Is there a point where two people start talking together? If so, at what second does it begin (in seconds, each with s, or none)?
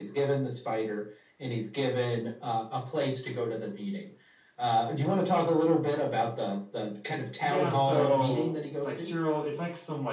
7.4 s